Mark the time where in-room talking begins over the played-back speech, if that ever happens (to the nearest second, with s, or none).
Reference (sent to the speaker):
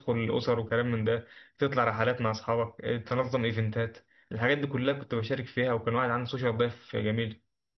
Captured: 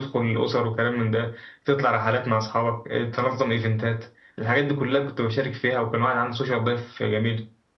none